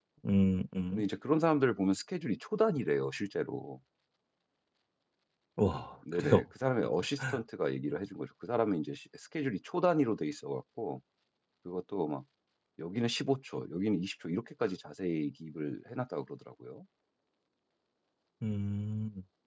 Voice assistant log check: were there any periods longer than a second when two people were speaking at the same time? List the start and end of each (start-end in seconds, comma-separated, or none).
none